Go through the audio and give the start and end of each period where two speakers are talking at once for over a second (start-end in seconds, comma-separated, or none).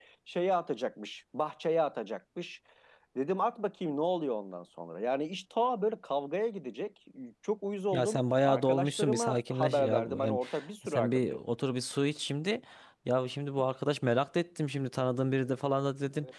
7.9-10.4